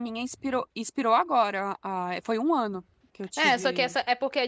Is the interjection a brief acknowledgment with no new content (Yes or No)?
No